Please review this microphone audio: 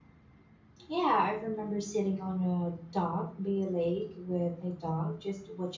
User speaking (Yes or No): Yes